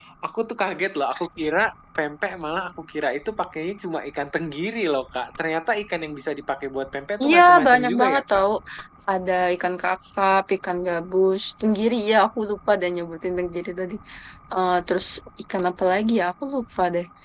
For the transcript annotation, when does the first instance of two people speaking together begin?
7.2 s

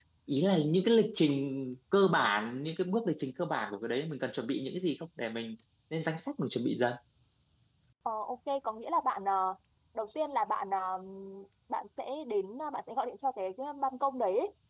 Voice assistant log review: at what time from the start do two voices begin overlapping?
none

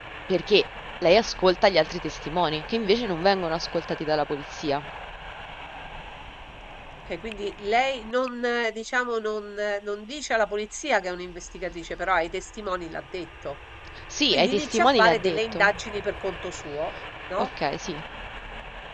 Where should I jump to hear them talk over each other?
14.3 s

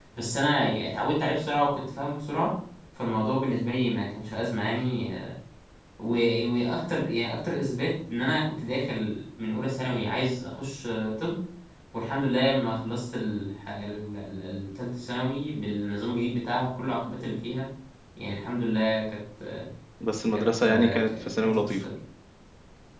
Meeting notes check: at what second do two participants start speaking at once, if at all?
20.3 s

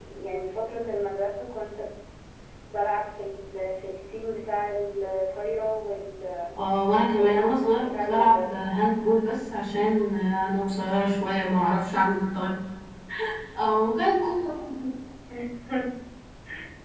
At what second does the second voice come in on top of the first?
7.2 s

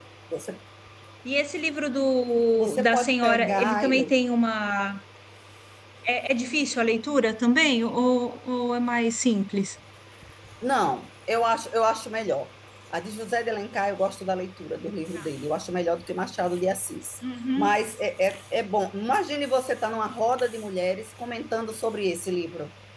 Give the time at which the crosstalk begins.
2.6 s

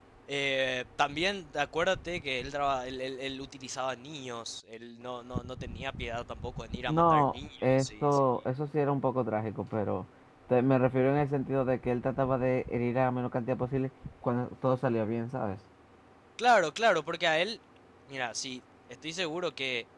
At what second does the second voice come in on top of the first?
6.9 s

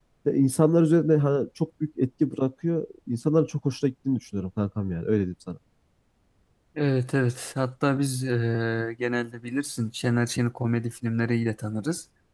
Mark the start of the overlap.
none

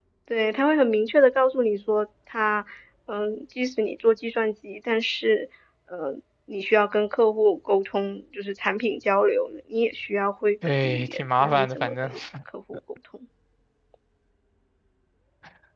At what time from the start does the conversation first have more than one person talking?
10.6 s

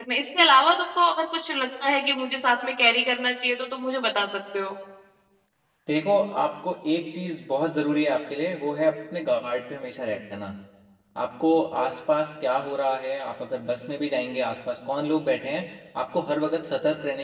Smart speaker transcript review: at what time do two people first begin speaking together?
none

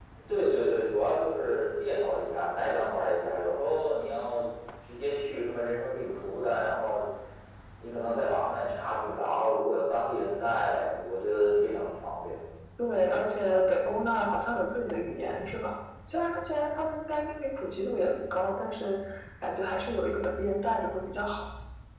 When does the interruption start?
none

